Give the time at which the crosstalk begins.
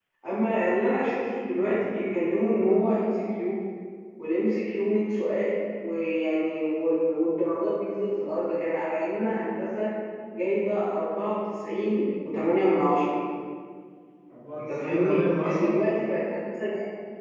14.6 s

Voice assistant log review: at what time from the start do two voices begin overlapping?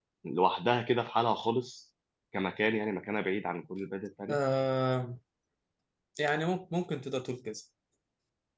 none

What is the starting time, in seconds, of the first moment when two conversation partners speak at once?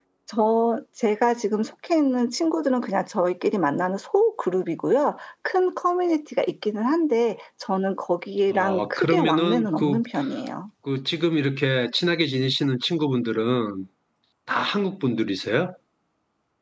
8.5 s

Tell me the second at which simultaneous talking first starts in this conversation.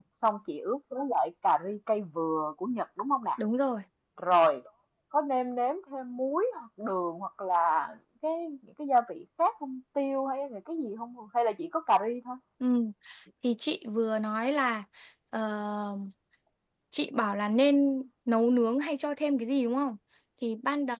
none

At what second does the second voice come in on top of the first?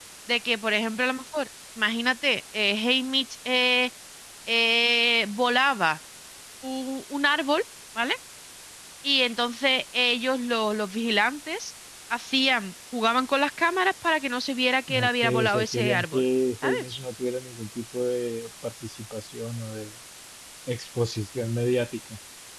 14.9 s

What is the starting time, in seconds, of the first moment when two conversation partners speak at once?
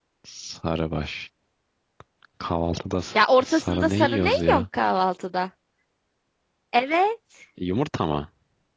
3.4 s

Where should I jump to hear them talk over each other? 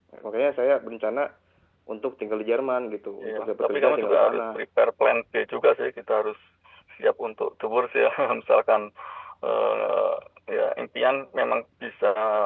3.2 s

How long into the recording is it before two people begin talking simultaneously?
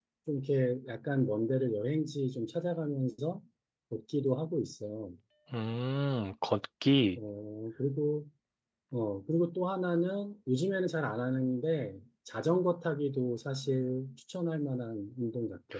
none

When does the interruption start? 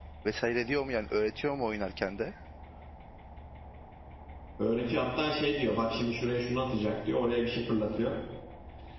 none

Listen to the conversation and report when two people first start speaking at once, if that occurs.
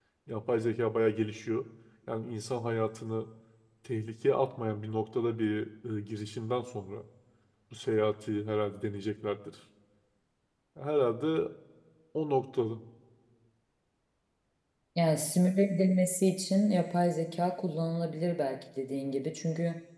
none

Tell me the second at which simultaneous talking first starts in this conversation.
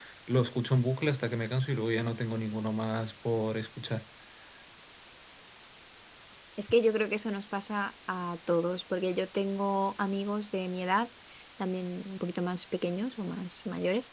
none

